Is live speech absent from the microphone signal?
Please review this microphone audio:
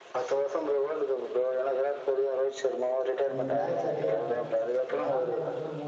No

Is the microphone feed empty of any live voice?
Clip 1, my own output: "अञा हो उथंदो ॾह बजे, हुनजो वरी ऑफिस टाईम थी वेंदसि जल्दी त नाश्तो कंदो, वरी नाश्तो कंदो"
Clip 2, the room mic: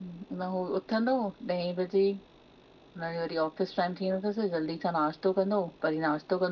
Yes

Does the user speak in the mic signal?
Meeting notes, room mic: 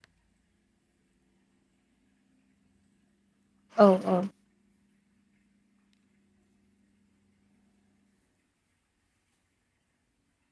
Yes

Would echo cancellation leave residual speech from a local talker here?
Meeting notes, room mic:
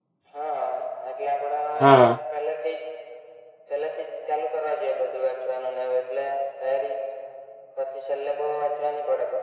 Yes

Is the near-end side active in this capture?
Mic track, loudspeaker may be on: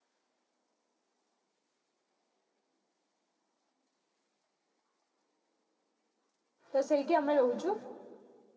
Yes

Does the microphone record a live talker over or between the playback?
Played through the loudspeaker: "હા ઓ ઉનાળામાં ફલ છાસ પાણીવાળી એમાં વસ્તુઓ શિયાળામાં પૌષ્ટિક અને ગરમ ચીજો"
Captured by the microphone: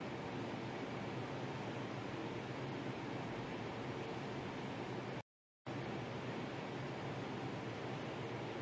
No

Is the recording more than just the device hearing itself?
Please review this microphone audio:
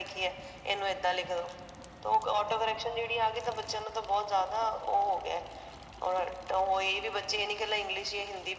No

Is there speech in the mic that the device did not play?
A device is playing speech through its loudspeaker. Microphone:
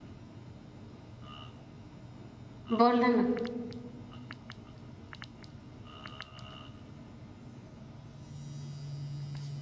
Yes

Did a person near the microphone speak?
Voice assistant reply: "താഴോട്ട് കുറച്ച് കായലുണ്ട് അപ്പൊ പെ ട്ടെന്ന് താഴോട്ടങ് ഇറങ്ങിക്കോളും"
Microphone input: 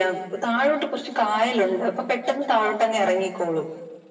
No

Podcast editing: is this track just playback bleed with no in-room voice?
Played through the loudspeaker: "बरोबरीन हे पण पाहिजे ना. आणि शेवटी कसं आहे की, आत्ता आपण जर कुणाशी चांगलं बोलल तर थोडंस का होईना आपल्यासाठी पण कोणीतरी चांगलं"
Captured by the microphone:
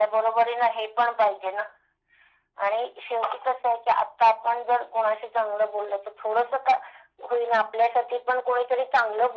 Yes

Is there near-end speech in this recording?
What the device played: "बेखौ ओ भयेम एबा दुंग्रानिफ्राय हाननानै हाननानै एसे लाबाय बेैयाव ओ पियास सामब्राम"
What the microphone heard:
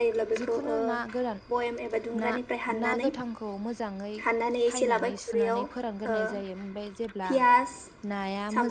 Yes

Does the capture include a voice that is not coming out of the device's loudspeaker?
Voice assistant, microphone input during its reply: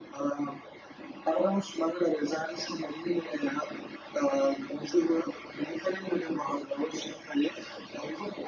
No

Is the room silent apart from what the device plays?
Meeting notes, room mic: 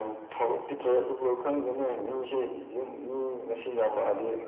Yes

